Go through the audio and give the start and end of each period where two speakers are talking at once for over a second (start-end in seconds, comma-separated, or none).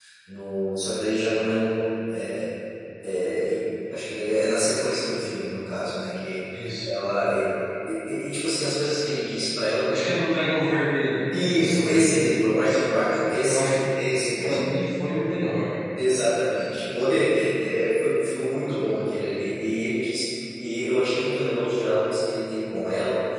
11.4-12.8